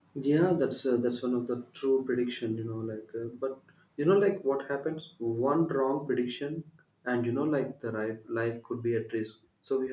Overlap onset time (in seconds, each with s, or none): none